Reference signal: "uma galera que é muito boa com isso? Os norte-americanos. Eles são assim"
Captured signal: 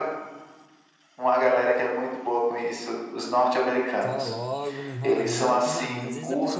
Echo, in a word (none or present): present